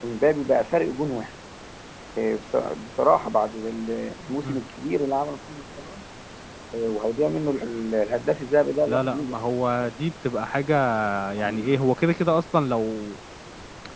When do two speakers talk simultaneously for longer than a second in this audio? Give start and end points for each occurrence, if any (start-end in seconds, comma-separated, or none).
none